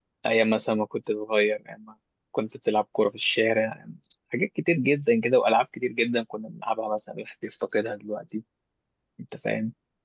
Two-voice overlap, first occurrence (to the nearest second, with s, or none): none